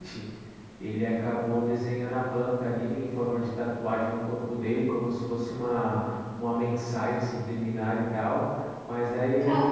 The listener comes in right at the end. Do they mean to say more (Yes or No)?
No